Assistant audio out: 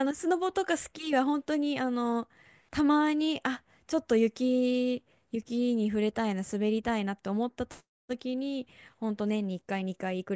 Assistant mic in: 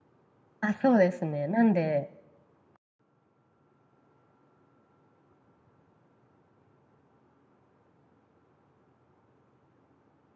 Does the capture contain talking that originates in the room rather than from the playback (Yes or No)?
Yes